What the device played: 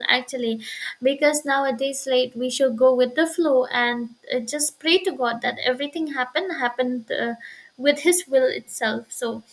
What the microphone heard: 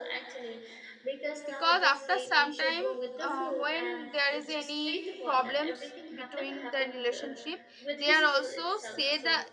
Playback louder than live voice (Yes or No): No